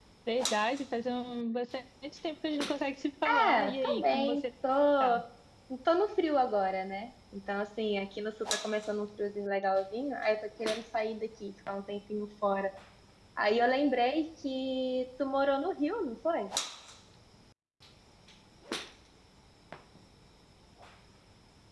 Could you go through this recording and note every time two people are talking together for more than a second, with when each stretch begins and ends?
3.2-4.5

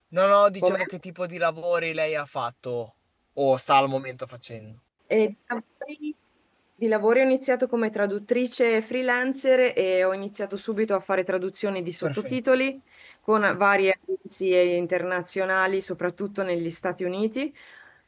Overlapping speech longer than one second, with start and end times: none

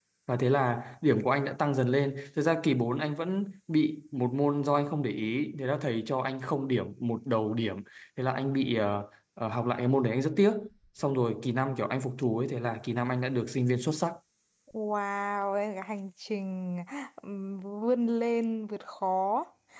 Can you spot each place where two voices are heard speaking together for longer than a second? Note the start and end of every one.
none

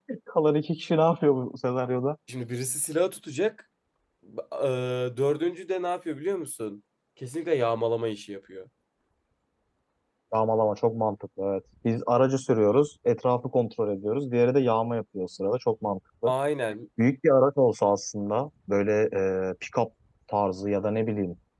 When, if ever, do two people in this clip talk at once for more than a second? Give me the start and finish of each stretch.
none

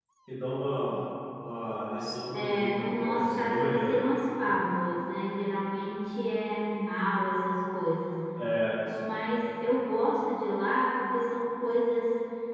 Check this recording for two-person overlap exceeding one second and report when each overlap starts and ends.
2.3-4.0

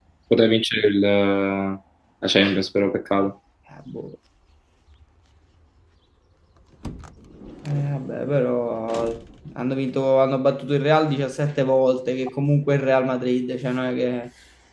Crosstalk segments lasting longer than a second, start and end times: none

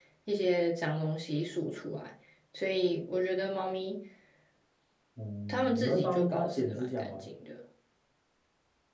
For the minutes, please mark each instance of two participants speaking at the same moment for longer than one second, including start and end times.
5.5-7.3

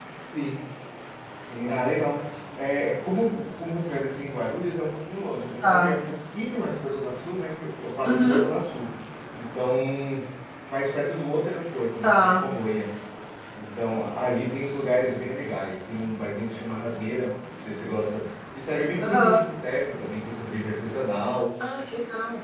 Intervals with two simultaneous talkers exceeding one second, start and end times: none

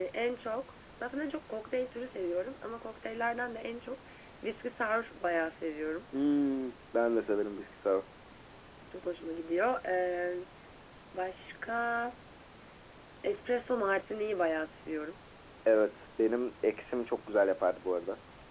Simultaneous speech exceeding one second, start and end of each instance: none

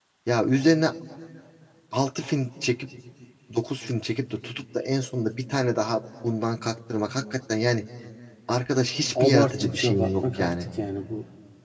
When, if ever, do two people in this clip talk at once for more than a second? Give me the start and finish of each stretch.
9.2-10.5

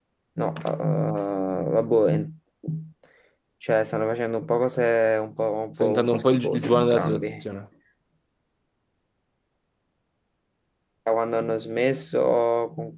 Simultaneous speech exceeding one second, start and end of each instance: 5.8-7.4

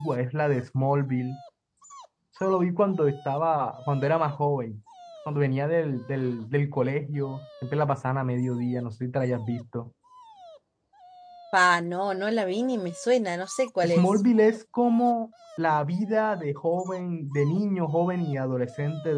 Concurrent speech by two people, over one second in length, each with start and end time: none

